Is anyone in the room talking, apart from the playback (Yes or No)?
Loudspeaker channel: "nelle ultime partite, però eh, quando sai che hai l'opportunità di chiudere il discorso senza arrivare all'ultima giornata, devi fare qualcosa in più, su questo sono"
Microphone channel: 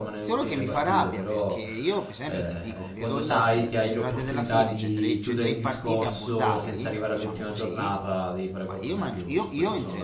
Yes